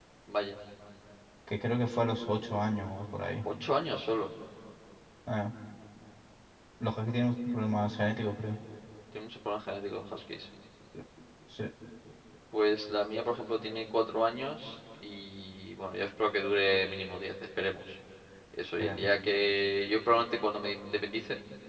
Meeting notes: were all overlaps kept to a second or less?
Yes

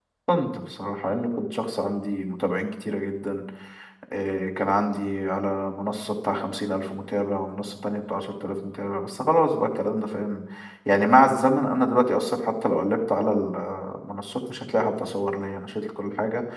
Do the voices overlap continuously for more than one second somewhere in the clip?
No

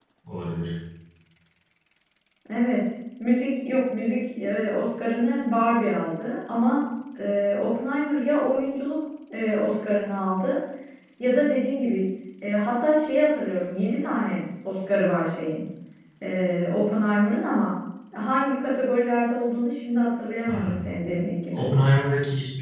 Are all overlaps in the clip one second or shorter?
Yes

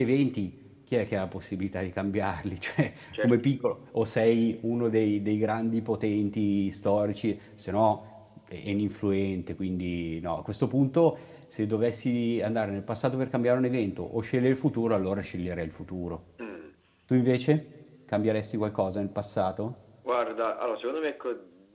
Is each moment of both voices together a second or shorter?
Yes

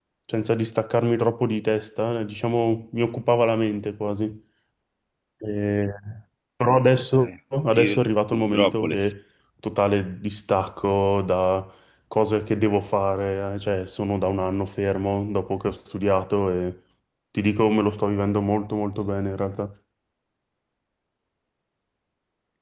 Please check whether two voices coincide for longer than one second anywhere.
Yes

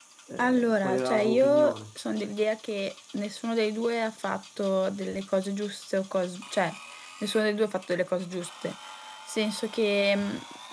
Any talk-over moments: Yes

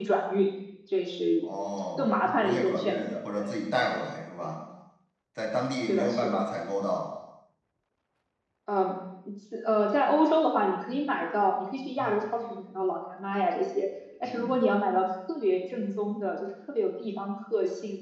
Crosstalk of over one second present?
Yes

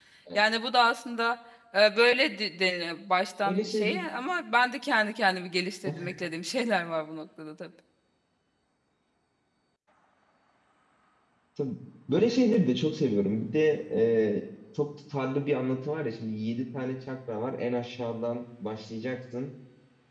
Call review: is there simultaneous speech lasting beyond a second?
No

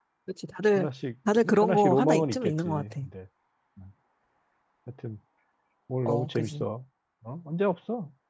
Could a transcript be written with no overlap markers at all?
No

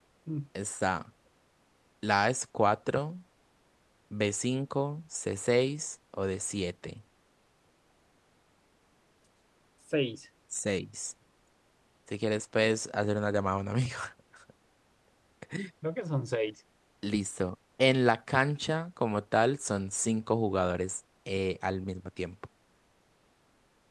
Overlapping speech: No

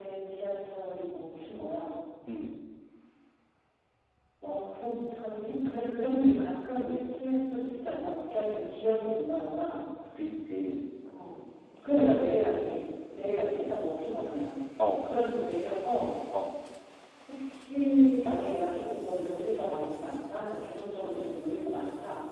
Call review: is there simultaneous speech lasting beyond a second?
No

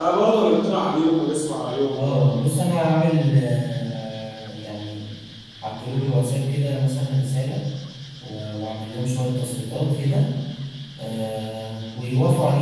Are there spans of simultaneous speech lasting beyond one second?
No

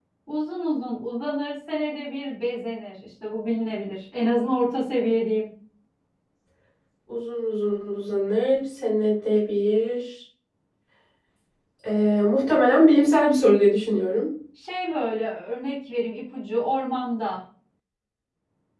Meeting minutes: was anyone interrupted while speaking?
No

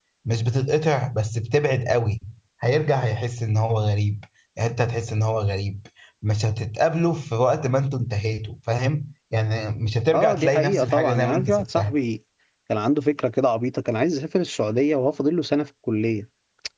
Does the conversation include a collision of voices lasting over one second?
Yes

